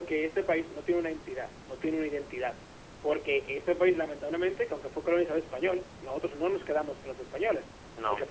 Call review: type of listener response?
listening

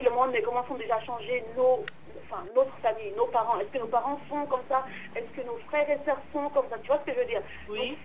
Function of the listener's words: listening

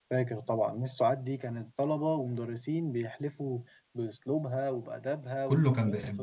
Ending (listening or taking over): taking over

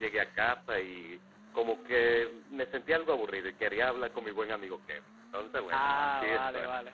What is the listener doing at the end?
taking over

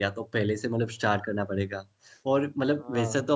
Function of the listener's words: listening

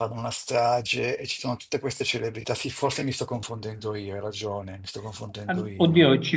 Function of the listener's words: taking over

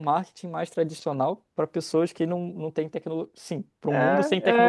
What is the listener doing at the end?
taking over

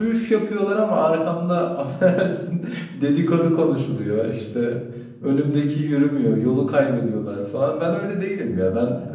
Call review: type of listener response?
taking over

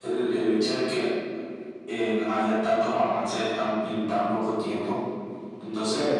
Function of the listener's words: taking over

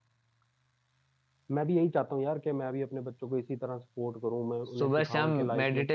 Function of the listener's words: taking over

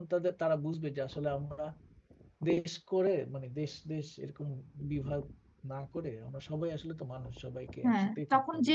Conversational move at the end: taking over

